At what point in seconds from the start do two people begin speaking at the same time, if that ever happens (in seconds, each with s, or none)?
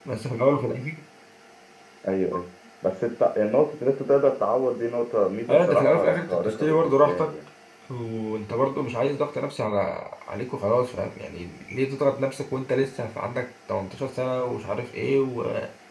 5.5 s